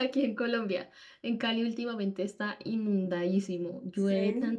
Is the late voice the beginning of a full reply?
No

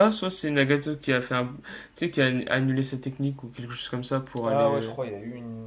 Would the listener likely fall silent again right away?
No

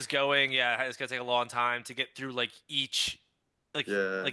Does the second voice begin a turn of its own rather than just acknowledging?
No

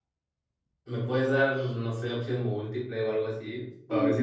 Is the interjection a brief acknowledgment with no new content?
No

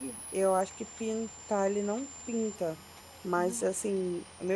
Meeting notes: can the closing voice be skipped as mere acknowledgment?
Yes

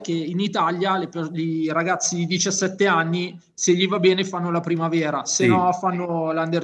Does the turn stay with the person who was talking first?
Yes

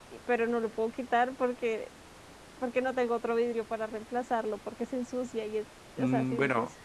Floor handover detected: Yes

